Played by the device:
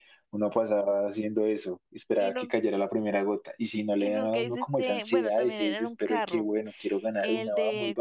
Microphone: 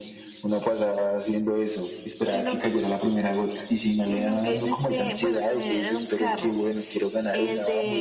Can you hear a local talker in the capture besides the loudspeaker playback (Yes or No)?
No